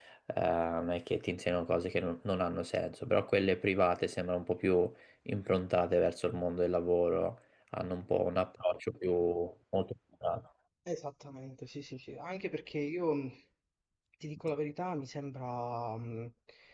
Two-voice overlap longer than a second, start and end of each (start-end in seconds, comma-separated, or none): none